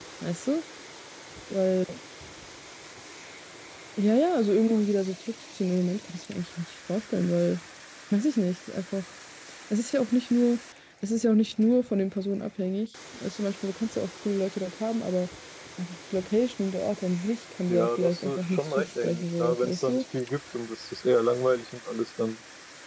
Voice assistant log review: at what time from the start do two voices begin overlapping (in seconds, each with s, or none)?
17.7 s